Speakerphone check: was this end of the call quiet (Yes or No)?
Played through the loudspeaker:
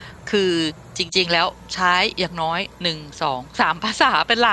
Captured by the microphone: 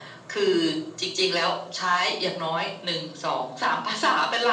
Yes